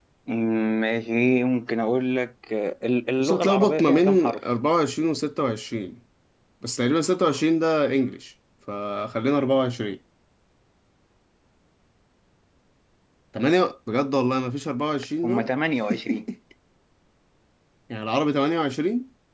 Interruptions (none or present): present